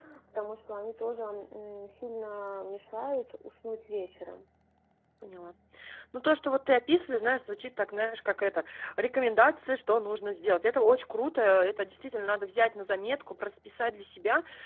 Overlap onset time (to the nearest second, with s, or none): none